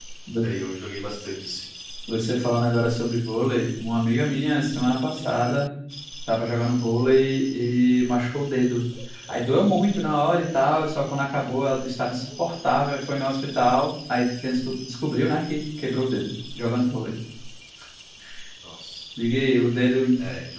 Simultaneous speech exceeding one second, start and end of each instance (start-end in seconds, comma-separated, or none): none